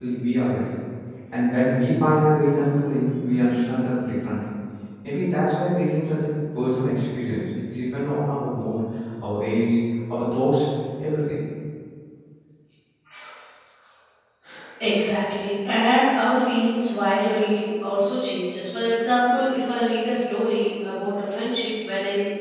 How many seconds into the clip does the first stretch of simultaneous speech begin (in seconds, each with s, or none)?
none